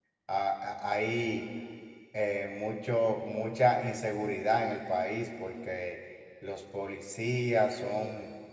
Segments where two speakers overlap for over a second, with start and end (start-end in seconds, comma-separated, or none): none